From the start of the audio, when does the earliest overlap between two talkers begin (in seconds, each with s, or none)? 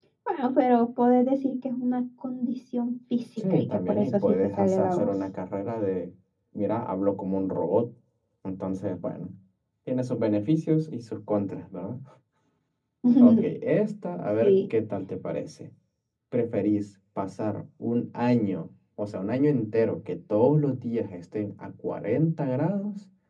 3.4 s